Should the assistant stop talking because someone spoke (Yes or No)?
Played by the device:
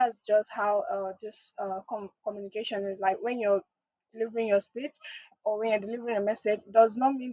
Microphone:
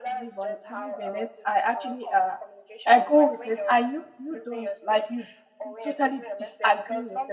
Yes